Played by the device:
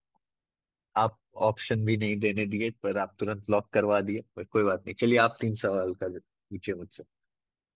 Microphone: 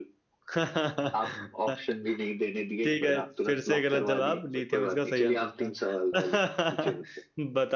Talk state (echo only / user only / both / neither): both